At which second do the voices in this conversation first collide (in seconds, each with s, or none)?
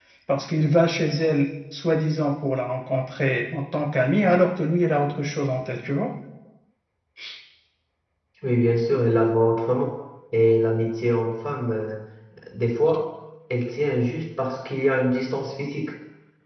none